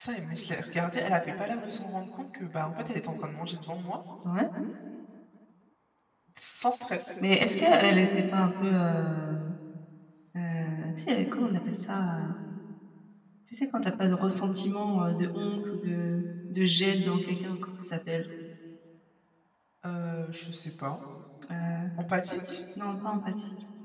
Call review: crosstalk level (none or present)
none